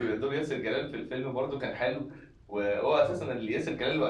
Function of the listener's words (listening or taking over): listening